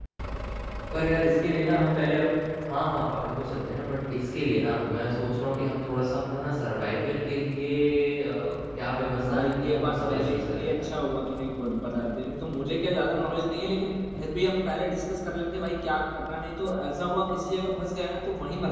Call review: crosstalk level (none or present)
present